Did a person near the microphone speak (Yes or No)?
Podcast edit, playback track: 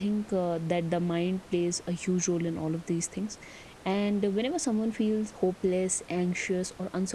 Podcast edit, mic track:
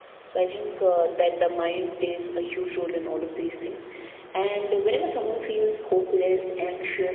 No